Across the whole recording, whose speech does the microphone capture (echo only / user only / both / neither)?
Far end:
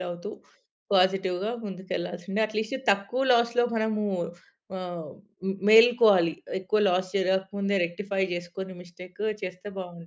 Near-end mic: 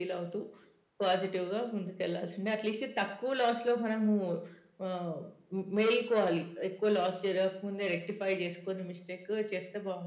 echo only